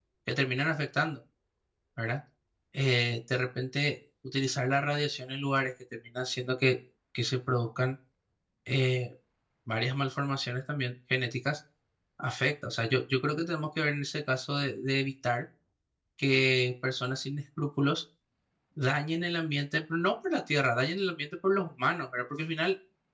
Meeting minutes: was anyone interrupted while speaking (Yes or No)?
No